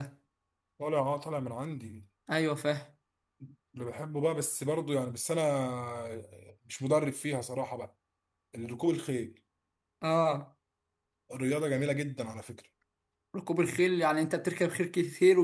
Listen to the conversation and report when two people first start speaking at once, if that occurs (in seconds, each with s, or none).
none